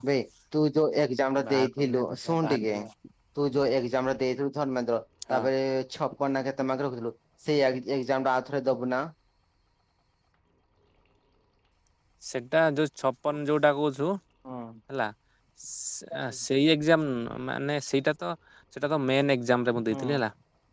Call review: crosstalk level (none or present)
present